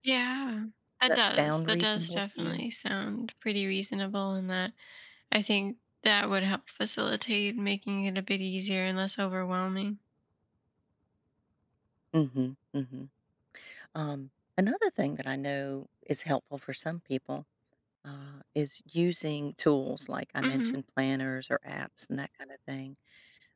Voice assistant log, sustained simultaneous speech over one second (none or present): present